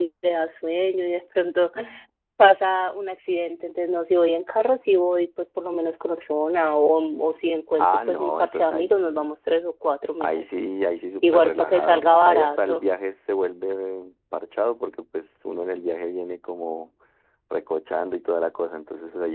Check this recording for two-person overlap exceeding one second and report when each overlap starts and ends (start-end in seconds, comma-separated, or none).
7.8-9.3, 11.2-12.8